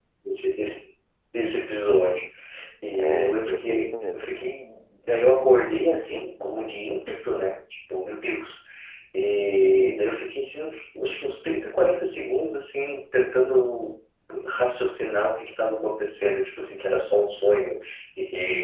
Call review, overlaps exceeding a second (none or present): present